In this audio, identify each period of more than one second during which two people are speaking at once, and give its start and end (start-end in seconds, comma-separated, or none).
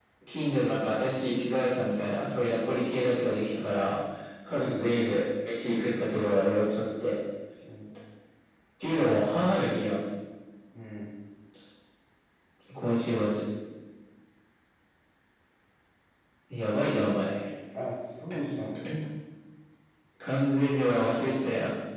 none